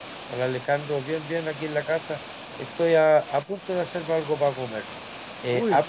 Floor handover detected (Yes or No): No